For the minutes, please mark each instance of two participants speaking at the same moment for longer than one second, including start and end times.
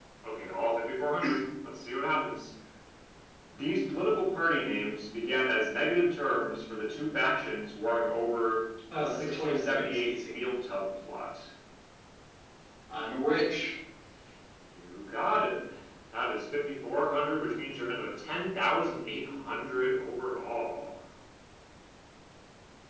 9.0-10.3

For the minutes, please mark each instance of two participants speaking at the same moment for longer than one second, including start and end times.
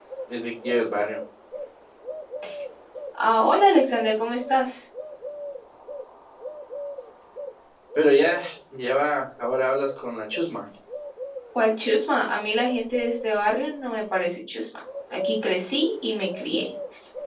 none

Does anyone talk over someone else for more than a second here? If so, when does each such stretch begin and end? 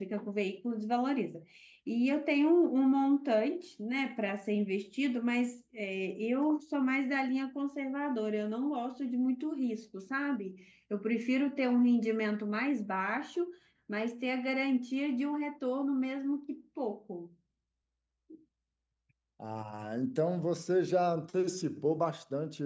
none

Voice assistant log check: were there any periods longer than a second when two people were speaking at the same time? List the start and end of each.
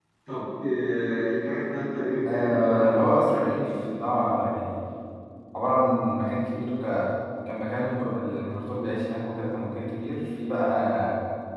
2.3-3.6

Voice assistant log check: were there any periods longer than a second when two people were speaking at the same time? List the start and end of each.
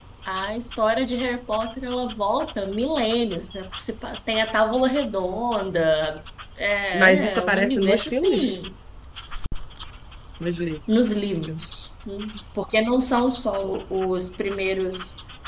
6.9-8.6

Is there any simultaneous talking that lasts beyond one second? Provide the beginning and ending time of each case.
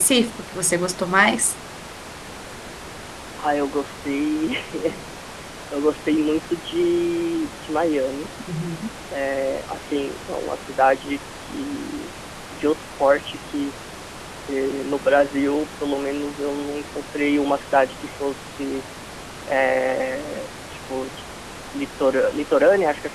none

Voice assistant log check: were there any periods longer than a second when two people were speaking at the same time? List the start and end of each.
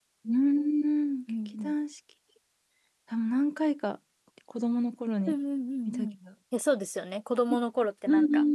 none

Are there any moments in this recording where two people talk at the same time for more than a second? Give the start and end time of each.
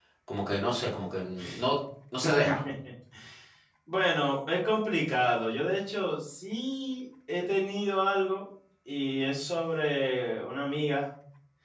none

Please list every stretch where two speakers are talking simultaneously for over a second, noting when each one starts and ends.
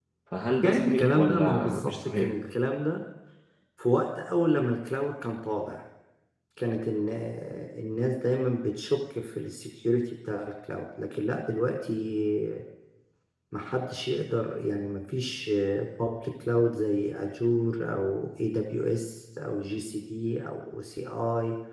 0.6-2.3

